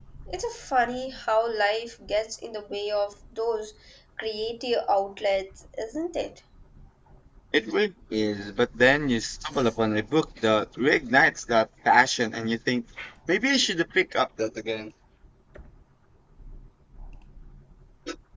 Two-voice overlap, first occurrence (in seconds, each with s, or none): none